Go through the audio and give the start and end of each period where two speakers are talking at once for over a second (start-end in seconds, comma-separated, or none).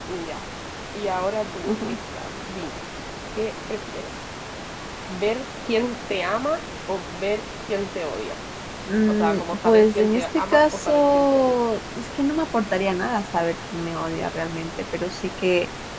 9.1-11.6